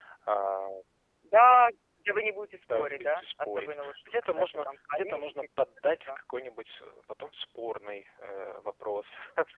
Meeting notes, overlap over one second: present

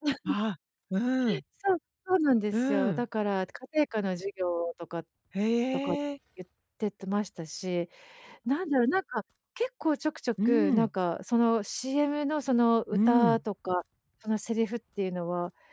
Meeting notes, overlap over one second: none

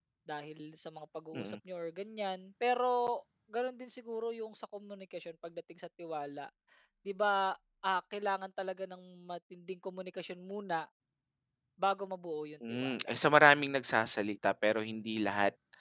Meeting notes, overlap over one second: none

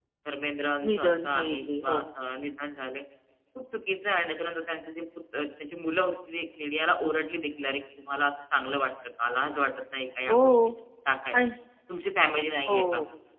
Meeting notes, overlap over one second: present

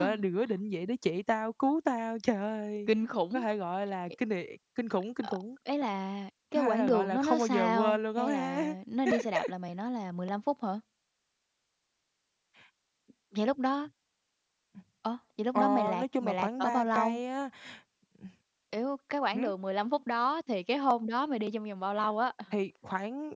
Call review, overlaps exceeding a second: present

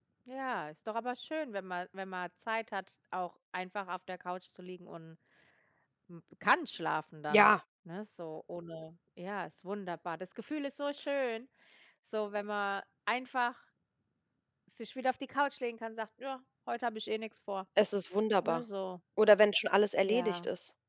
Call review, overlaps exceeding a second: none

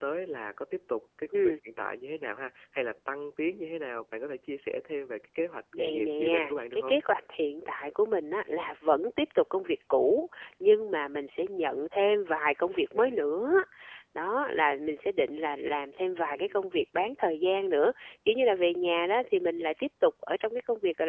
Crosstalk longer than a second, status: present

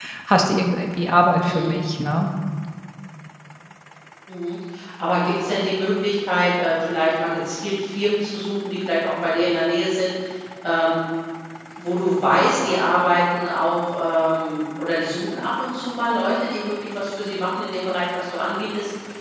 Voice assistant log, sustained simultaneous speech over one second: none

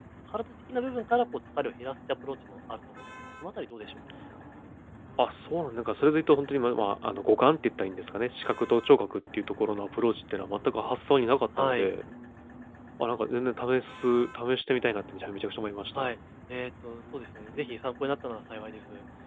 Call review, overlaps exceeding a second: none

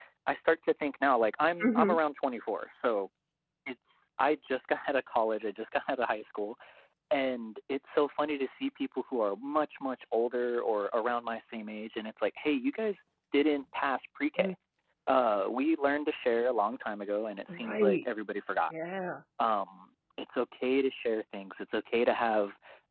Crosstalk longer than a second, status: none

